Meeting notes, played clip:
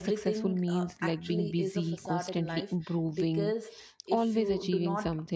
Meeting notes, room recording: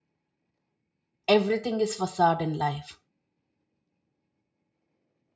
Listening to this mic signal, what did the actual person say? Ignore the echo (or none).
everything is facade in life